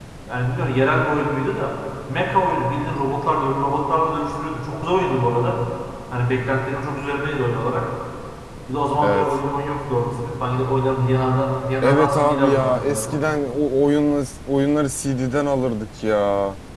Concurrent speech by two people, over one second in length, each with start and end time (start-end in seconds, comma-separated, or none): 11.8-13.2